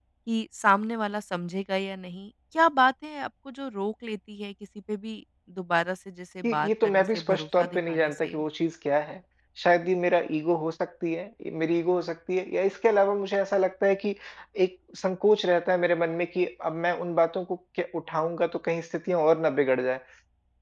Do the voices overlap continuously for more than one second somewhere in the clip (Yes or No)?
Yes